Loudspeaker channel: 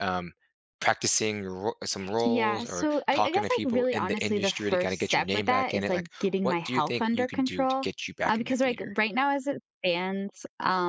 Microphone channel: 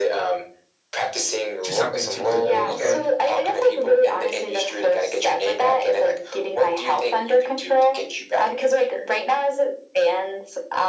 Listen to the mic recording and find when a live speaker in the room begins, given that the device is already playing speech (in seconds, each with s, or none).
1.6 s